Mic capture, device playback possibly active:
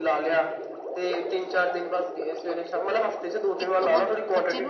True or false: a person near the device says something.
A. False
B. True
B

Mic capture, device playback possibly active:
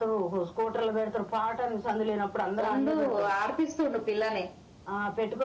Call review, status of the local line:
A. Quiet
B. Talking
B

